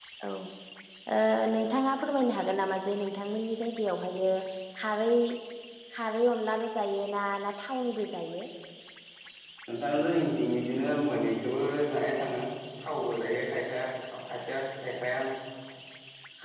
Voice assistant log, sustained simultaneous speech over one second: none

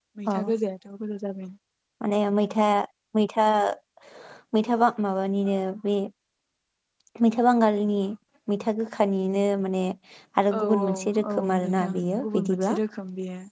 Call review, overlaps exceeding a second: present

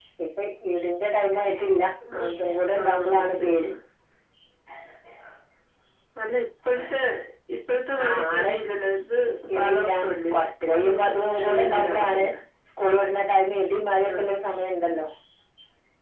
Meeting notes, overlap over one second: present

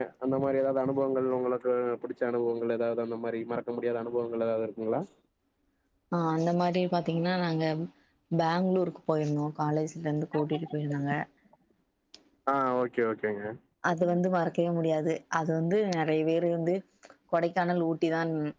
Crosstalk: none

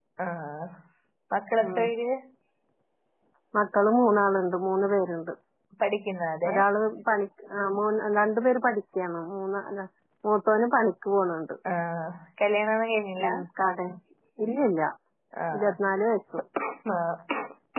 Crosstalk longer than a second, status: none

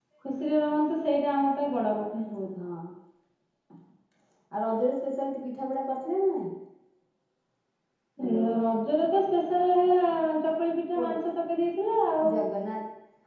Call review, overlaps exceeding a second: none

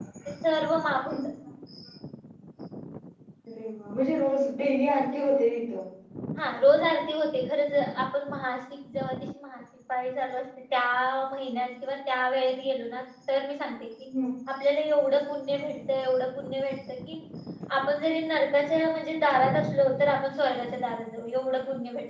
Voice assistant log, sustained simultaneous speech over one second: none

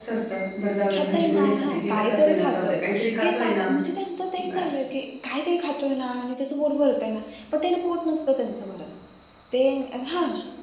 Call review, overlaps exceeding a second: present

